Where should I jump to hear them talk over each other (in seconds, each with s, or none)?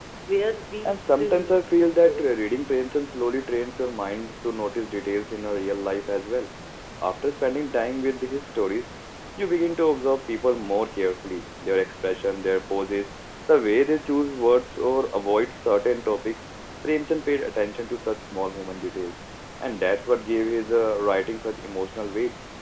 0.8 s